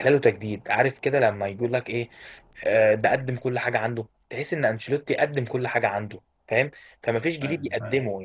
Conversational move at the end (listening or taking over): listening